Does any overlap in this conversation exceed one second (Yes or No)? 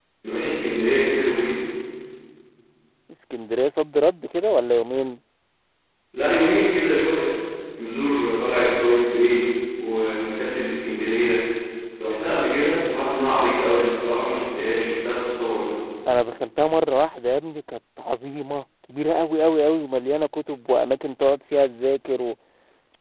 No